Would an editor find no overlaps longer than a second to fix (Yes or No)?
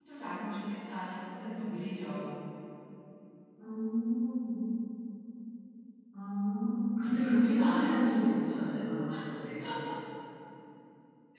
No